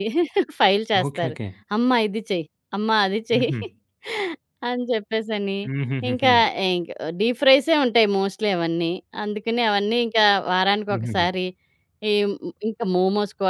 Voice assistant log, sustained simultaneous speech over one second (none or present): none